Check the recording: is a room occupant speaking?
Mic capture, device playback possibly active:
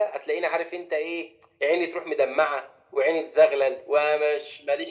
No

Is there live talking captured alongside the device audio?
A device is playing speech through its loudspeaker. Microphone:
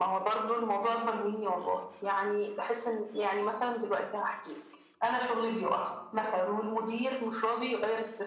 No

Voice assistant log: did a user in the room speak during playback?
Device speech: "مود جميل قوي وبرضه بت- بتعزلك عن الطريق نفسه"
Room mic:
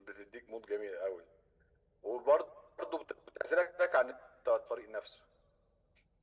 No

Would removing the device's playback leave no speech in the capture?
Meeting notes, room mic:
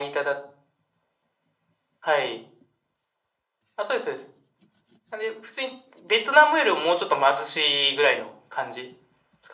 Yes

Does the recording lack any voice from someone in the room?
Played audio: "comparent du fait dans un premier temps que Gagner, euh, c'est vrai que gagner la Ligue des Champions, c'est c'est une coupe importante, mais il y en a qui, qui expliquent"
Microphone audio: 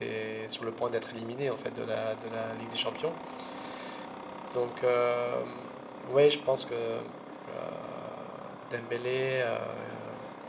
No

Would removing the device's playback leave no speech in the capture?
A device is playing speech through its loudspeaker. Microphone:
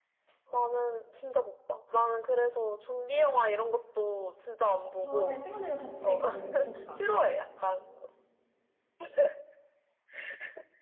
No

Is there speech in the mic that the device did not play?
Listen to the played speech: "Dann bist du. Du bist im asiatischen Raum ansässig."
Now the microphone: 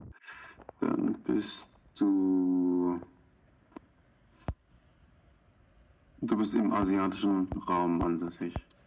No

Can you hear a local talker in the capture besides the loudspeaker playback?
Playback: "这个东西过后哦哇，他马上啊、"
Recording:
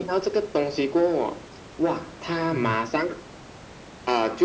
Yes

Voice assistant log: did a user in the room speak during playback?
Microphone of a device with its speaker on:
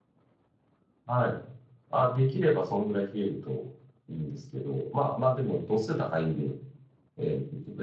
Yes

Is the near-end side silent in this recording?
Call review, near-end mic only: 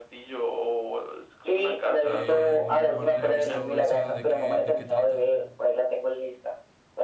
No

